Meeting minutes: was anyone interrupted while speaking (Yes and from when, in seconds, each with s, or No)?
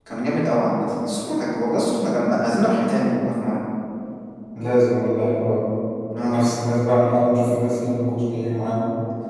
No